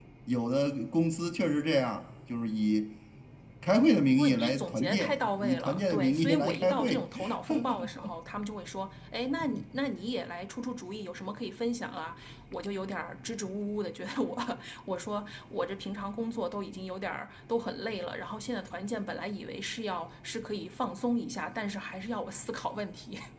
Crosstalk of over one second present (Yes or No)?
Yes